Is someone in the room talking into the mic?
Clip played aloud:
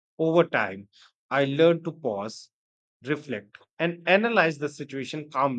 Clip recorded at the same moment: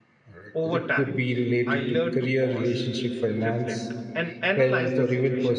Yes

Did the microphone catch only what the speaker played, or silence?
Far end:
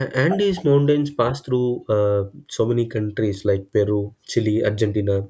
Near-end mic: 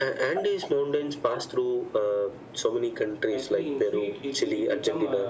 No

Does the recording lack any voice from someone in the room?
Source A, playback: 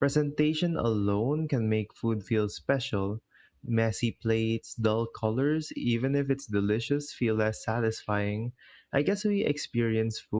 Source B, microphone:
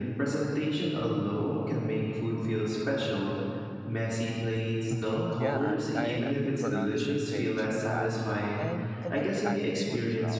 No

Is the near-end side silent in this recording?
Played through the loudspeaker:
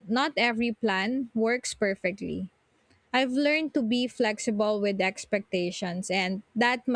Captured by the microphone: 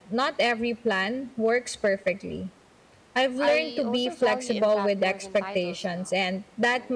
No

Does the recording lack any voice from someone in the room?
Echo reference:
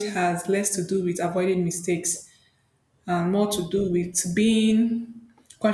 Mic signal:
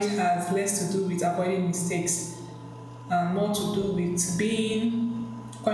Yes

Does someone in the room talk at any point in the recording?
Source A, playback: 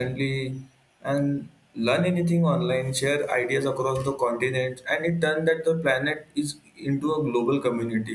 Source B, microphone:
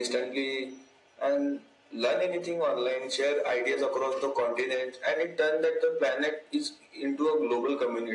No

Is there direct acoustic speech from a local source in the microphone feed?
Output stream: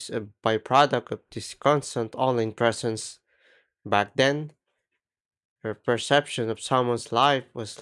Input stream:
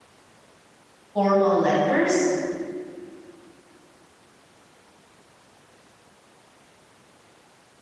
Yes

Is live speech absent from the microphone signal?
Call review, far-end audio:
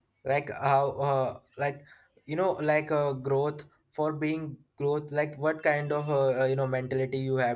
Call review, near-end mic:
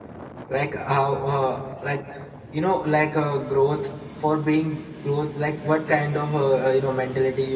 Yes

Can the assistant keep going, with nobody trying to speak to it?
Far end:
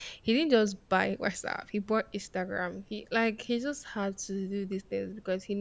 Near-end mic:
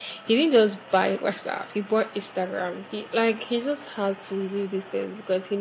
Yes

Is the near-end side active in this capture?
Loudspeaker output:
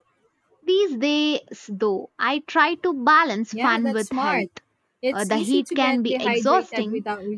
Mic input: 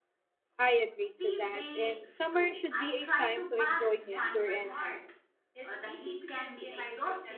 Yes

